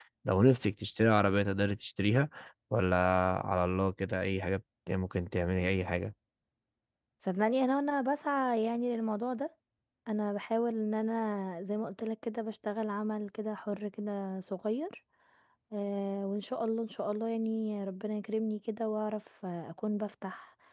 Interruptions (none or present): none